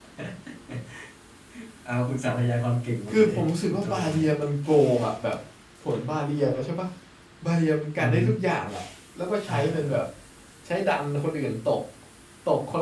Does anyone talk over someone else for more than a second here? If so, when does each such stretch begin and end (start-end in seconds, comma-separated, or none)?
3.1-4.3